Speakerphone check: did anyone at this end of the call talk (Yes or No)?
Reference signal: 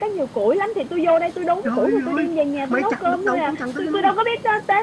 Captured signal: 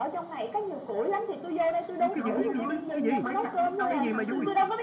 Yes